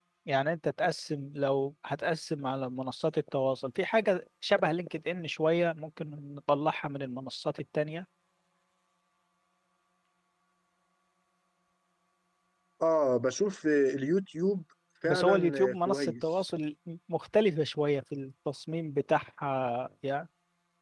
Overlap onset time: 15.0 s

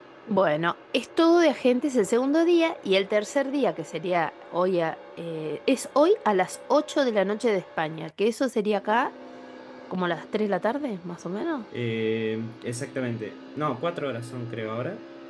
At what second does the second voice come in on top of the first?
none

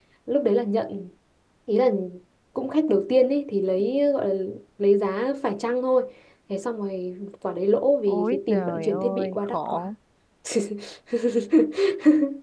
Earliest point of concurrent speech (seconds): 8.1 s

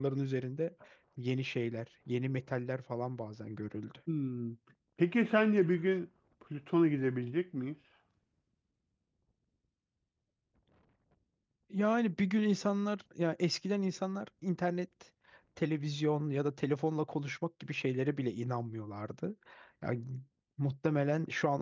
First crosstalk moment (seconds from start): none

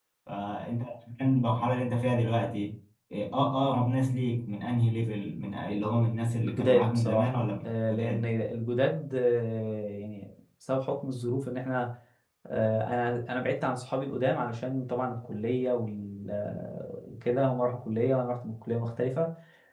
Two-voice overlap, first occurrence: 6.4 s

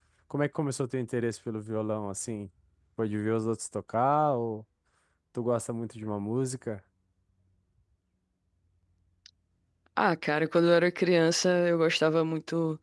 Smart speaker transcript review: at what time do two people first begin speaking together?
none

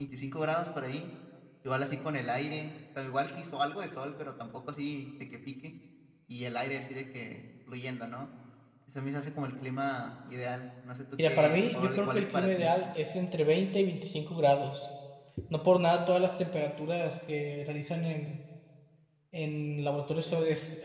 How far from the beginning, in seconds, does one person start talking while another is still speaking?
11.2 s

